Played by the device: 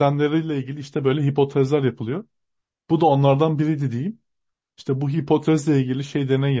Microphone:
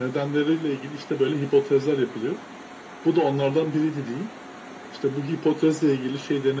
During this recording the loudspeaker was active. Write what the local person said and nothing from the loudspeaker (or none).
none